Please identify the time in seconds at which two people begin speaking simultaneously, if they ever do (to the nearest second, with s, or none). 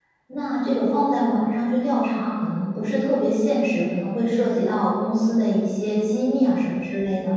none